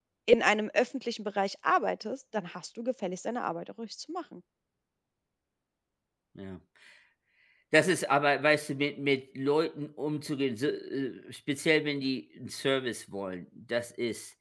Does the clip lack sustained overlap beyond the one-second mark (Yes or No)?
Yes